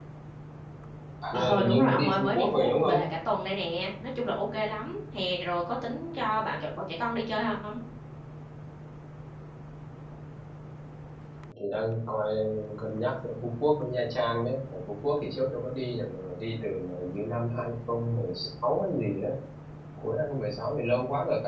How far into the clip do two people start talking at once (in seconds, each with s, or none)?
1.3 s